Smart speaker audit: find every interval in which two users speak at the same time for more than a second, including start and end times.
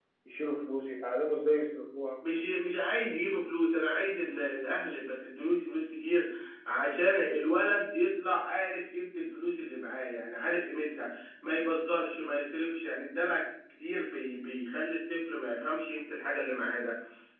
none

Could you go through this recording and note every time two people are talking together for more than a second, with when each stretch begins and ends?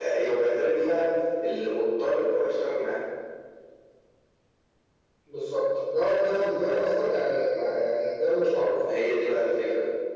none

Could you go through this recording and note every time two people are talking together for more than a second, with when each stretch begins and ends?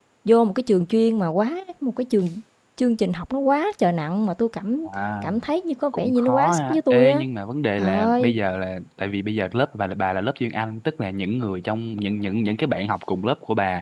5.9-7.2

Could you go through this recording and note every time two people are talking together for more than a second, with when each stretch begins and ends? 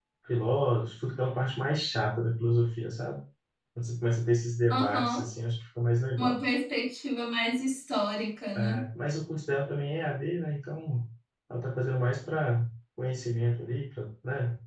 none

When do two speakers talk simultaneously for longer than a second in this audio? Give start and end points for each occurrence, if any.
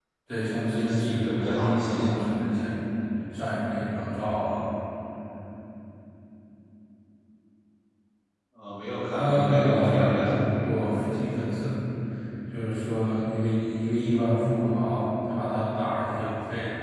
0.7-2.3, 9.1-10.8

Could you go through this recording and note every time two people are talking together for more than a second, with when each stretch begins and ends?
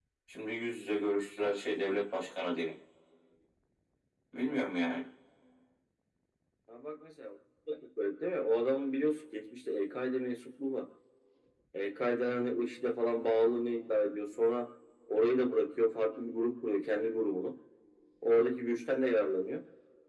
none

